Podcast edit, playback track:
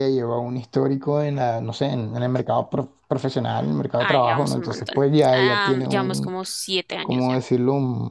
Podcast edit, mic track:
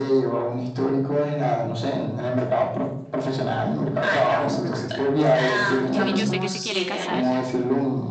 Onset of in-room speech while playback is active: 5.9 s

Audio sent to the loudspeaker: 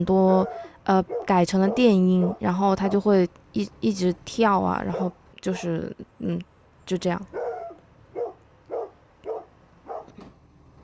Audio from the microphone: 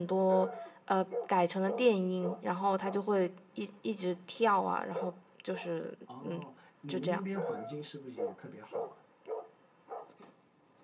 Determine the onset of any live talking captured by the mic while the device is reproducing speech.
6.0 s

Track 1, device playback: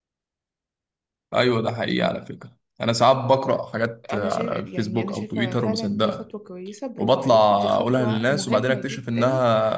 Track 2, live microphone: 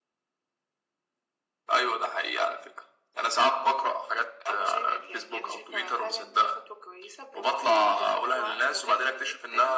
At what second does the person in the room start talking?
none

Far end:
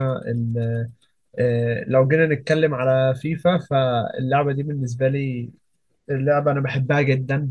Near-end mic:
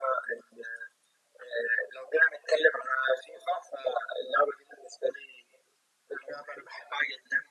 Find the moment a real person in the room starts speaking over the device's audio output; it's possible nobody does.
none

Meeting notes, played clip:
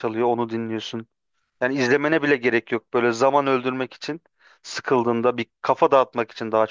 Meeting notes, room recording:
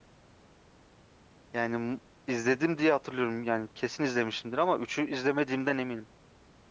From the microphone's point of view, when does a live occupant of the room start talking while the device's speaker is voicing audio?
1.5 s

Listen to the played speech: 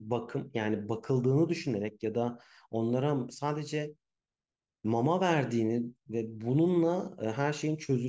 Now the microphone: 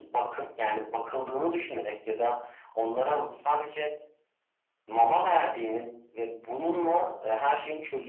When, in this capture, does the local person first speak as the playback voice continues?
none

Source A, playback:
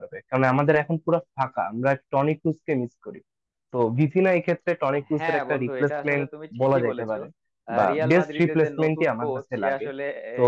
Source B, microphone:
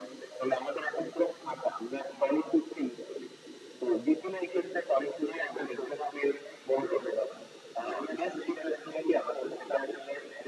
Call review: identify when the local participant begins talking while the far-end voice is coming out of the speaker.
none

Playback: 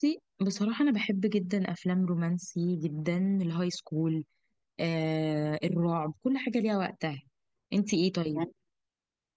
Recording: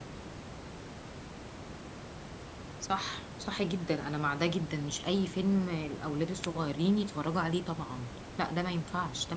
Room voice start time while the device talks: 2.8 s

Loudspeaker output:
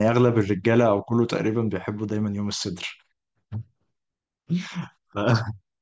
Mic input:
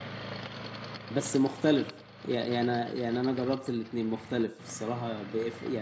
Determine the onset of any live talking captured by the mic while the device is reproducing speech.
1.1 s

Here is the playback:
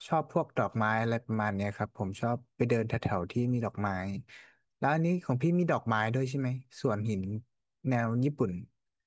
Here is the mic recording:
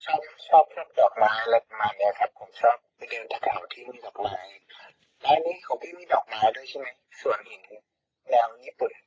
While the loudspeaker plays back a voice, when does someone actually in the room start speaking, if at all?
none

